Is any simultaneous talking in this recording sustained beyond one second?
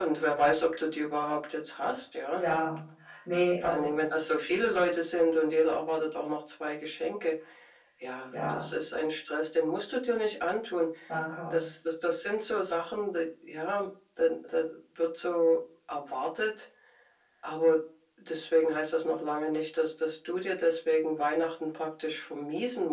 No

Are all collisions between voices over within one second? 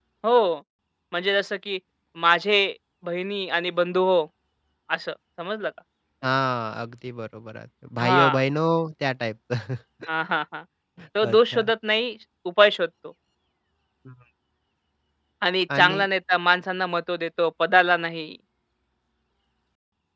Yes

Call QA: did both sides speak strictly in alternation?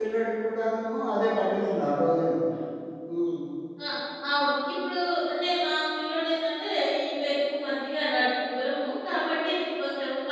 Yes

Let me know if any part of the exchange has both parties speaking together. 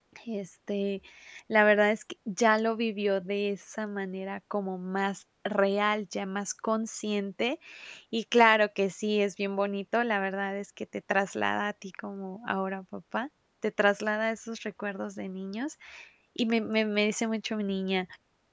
No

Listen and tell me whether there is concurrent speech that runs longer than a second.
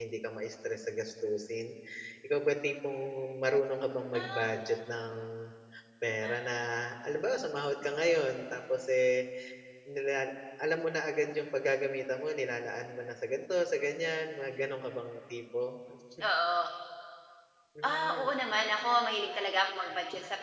No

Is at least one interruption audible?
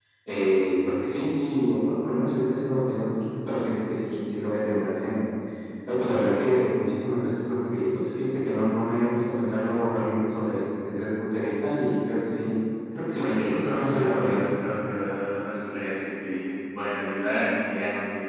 Yes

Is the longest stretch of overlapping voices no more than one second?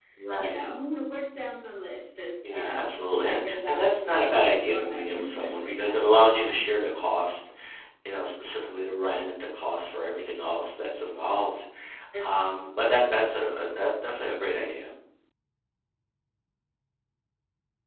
No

